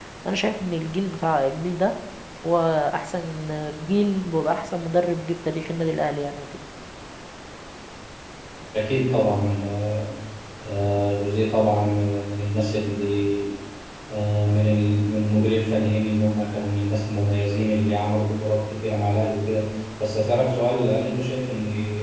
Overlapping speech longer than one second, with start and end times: none

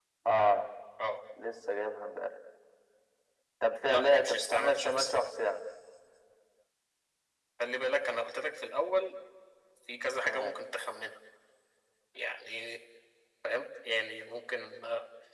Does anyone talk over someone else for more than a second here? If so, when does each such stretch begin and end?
3.9-5.1

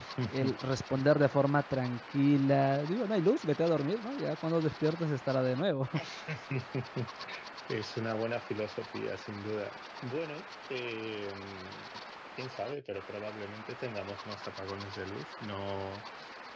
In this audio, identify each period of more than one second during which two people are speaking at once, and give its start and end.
none

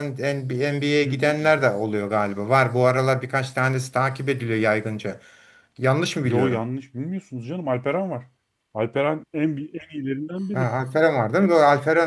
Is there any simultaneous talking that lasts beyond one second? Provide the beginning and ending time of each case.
none

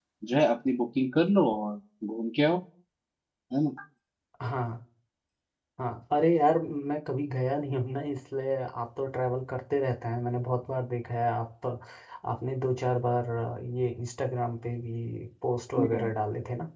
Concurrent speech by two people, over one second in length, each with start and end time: none

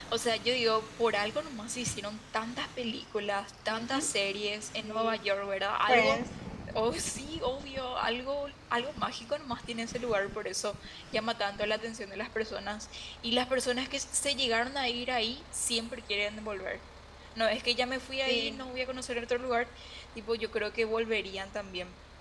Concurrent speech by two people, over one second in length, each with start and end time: none

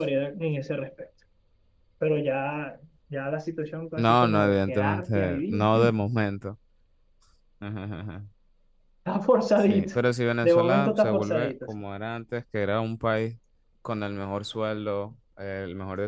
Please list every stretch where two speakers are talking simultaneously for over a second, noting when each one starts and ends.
4.0-6.0, 10.4-11.7

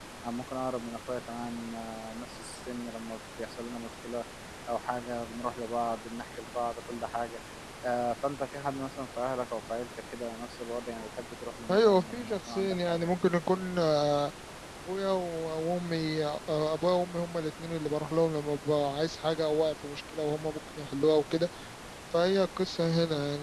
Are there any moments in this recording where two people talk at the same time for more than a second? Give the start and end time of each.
11.7-13.1

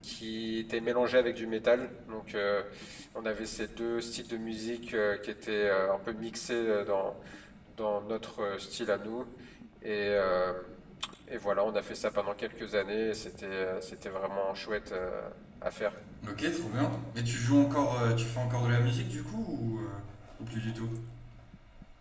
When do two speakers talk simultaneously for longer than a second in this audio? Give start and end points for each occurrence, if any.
none

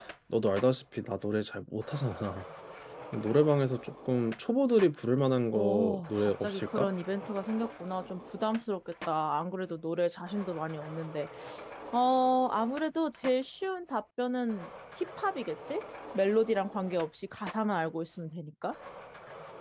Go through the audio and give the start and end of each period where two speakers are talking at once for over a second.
5.5-6.9

